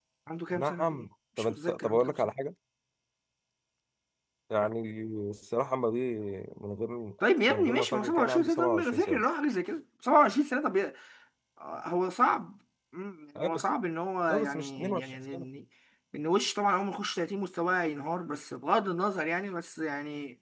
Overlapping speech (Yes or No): Yes